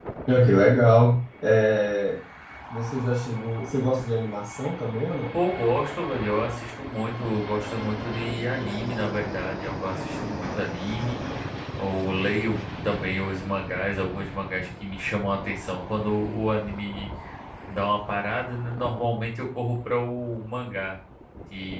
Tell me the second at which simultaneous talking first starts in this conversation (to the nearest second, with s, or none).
none